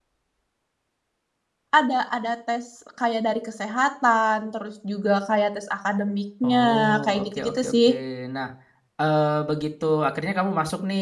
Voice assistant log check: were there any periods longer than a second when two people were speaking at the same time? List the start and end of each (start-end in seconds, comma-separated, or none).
6.4-7.9